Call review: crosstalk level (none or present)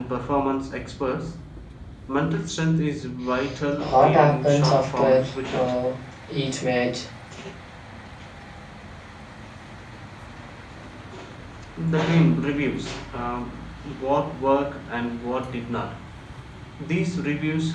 present